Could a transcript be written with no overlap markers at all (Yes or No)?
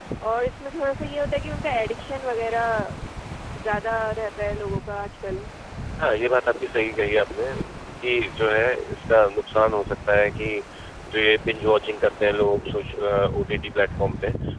Yes